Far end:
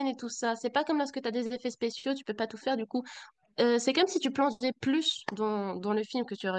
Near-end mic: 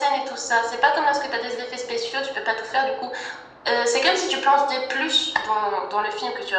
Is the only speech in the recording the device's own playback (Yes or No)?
Yes